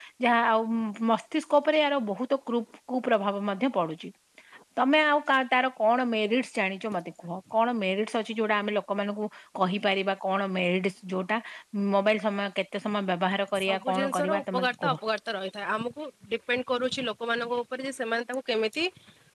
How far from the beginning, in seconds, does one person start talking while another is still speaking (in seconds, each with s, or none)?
13.6 s